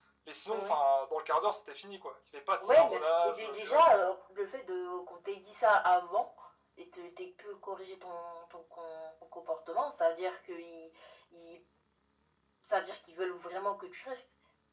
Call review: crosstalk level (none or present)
present